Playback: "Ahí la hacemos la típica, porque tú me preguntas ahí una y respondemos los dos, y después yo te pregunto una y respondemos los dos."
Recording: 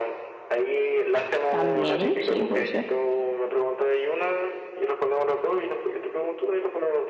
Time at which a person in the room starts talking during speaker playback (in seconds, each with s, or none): 1.5 s